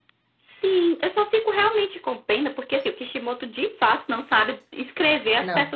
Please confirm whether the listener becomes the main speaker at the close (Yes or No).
No